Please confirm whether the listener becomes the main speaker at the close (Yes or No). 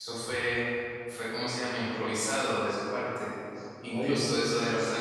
No